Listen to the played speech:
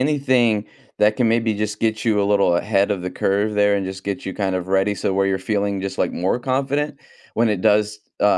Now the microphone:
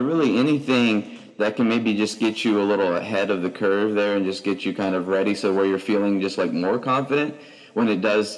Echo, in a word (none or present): present